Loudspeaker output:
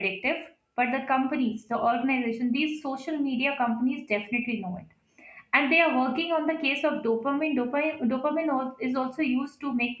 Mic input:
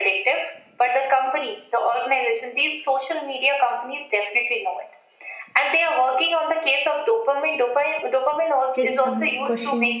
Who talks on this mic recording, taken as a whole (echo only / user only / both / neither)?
both